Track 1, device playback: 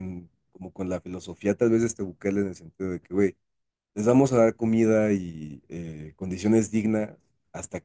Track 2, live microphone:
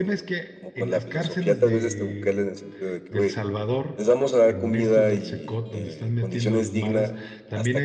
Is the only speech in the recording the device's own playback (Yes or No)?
No